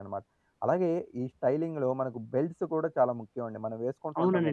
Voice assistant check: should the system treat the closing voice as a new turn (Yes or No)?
Yes